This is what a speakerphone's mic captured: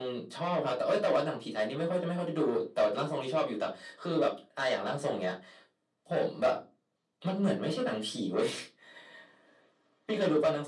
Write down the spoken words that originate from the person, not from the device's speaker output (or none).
none